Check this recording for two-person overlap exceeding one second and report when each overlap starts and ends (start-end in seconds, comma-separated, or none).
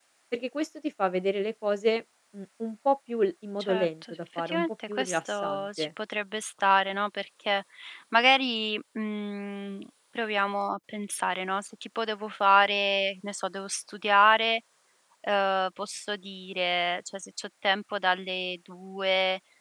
3.6-5.9